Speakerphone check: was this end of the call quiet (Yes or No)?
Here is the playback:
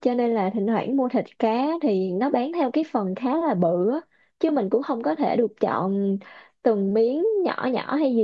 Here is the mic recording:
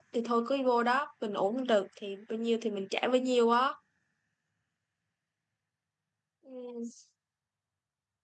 No